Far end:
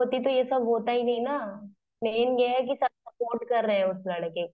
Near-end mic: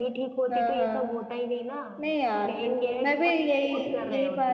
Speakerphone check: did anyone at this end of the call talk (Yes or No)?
Yes